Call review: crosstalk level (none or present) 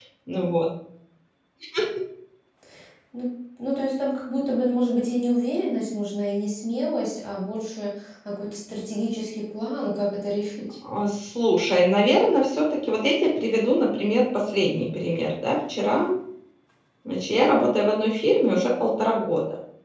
none